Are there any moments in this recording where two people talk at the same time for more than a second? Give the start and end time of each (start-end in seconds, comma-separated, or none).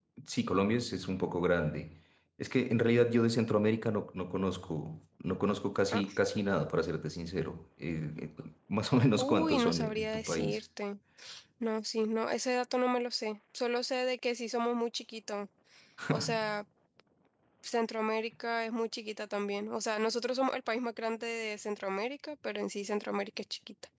9.2-10.6